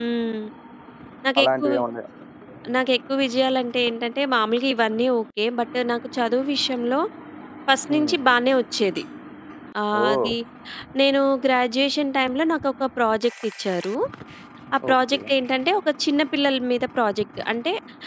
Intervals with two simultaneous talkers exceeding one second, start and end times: none

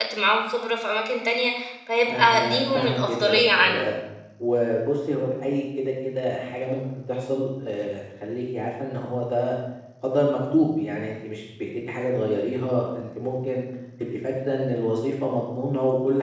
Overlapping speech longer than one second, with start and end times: 2.1-3.8

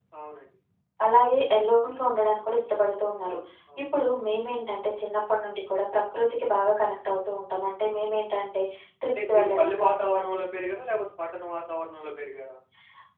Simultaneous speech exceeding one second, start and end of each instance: 9.1-10.4

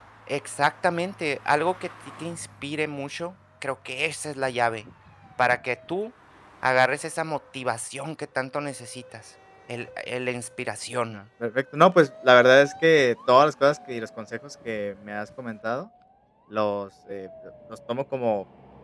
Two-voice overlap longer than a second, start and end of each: none

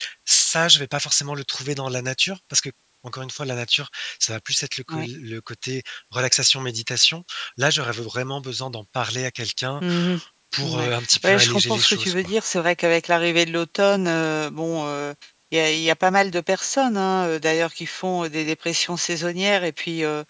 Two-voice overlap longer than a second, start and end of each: 10.6-12.3

